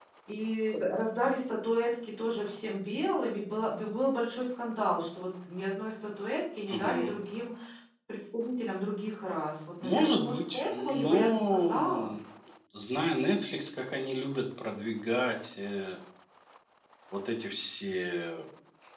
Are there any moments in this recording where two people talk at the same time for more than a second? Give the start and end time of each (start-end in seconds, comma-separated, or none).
9.8-12.1